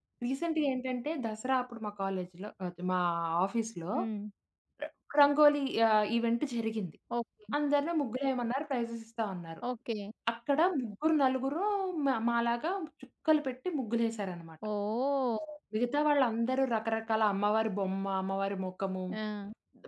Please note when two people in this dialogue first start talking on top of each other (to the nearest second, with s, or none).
none